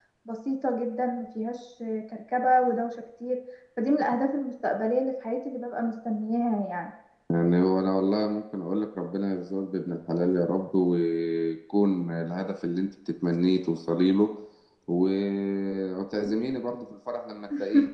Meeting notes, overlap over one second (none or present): none